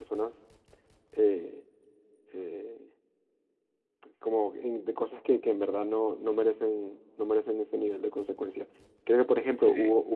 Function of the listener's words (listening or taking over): listening